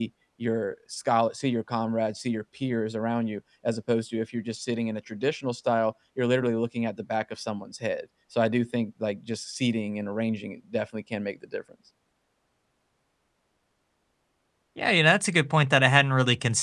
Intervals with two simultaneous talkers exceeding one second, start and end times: none

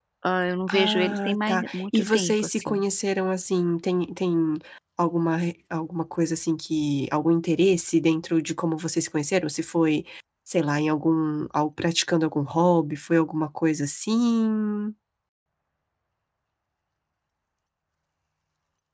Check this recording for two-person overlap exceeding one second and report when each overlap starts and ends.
0.7-2.8

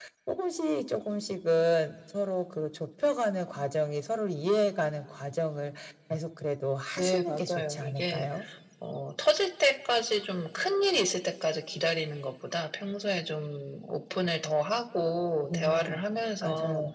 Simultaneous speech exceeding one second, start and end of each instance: 7.0-8.3

